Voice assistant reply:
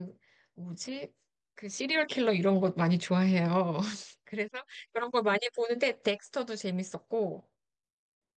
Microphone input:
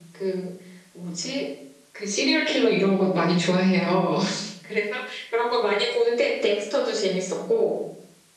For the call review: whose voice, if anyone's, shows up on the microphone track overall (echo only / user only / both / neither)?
echo only